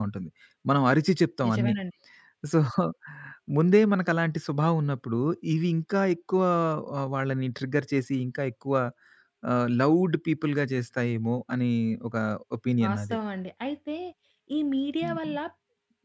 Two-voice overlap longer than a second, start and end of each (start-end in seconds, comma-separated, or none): none